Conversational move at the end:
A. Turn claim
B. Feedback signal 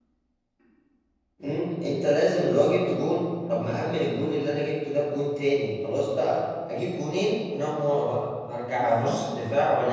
B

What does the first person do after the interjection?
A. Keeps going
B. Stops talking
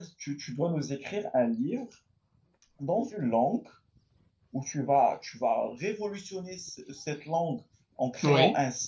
A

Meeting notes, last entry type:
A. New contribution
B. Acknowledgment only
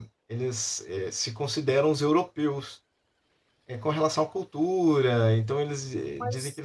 A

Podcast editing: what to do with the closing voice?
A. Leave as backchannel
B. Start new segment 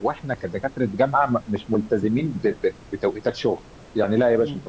A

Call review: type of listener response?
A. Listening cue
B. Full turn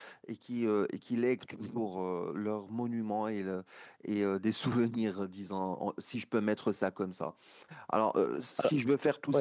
A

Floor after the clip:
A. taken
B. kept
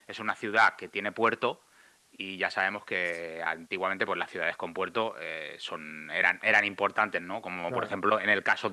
B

